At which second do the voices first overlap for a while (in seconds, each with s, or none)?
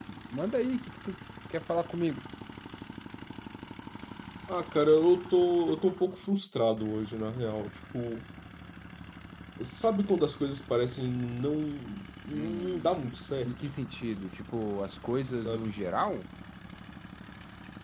12.3 s